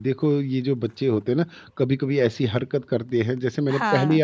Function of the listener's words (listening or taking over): listening